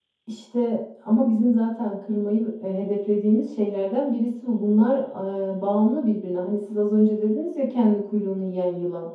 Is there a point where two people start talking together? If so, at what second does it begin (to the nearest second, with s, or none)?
none